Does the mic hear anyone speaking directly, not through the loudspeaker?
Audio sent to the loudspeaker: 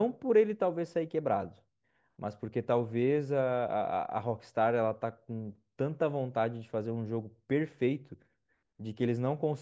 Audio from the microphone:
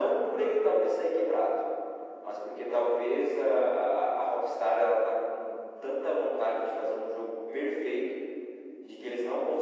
No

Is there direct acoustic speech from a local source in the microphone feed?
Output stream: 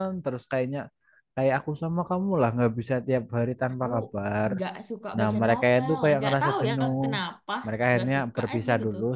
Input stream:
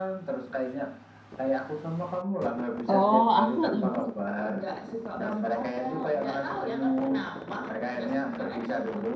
Yes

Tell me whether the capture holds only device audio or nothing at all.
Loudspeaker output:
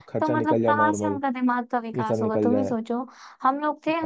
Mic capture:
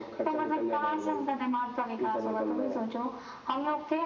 Yes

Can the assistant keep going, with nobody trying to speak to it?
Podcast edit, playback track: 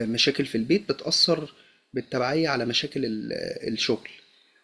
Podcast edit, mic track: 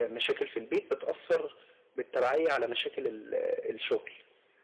Yes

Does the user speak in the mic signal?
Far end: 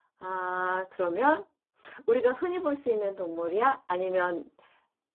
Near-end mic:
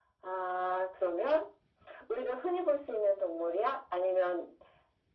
No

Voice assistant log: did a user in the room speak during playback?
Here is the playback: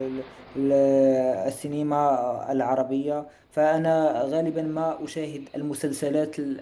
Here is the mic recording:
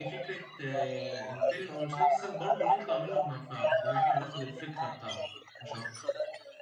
Yes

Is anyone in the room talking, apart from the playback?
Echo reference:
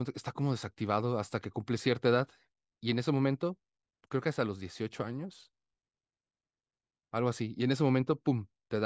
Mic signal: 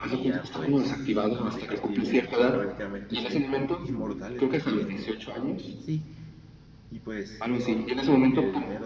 Yes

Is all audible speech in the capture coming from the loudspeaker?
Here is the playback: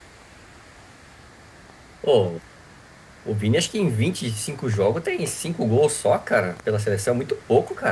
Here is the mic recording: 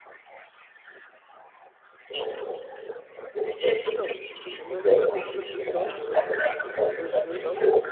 No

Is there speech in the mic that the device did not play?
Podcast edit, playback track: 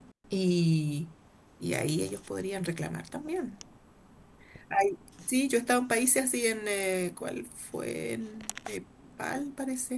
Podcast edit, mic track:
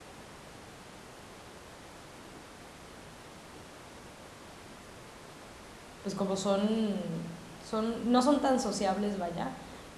Yes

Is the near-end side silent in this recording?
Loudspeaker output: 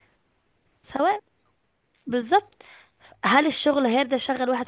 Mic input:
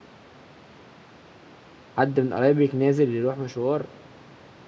No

